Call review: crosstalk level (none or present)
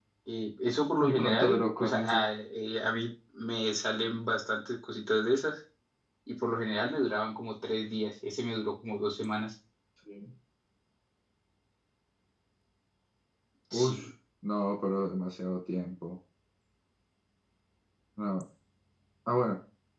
present